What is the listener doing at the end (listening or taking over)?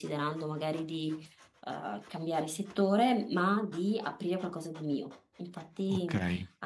listening